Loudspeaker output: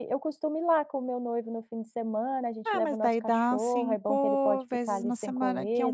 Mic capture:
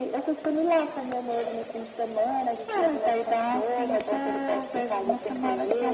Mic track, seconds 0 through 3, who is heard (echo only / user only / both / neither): echo only